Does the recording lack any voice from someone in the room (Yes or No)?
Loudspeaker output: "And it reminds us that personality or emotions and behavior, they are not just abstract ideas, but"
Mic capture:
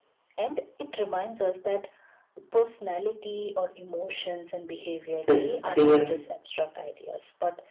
No